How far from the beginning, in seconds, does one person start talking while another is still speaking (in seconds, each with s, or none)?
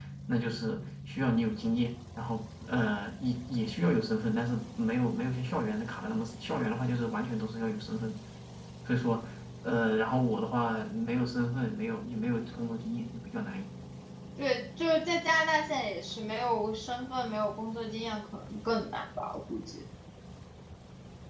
none